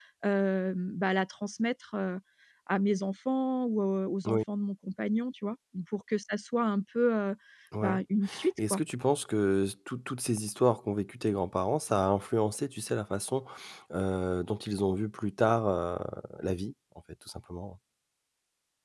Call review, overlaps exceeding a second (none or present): none